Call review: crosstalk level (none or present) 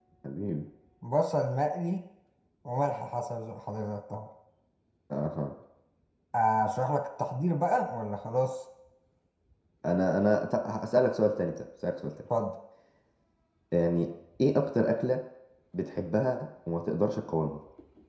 none